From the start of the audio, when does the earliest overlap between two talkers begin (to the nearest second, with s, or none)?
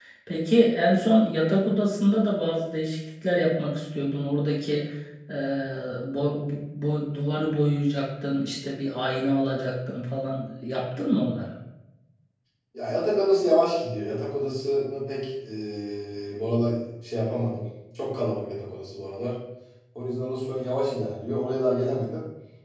none